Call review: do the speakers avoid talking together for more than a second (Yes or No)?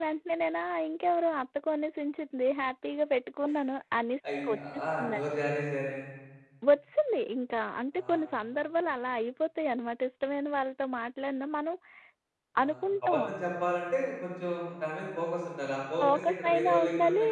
No